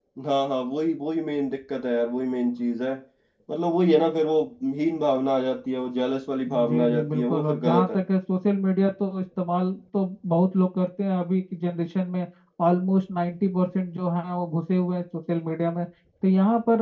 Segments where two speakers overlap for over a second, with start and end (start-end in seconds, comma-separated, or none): 6.5-8.0